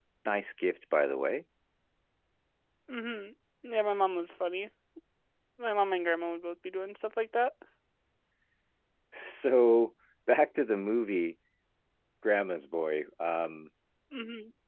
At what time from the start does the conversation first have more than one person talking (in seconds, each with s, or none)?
none